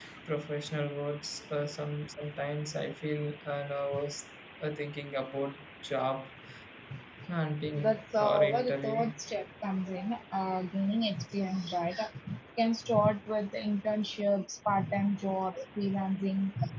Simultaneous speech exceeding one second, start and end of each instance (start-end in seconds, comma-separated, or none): 7.7-9.1